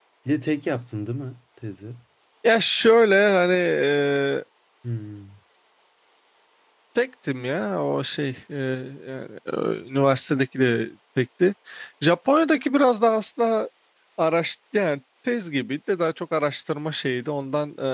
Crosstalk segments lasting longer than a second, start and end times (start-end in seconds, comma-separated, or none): none